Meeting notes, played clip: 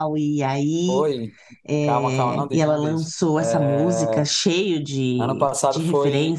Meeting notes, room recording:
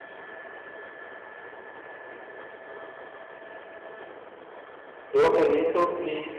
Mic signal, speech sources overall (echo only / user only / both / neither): user only